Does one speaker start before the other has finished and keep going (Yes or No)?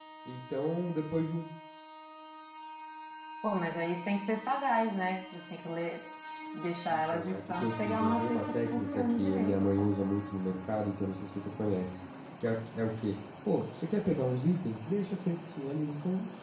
Yes